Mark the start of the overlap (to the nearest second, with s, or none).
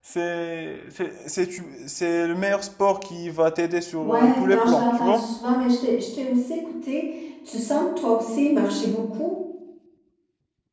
4 s